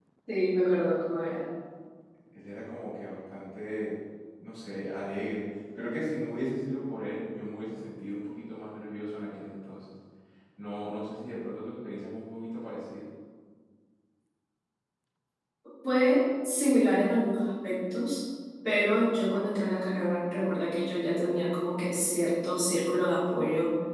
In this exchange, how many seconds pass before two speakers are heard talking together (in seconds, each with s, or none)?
none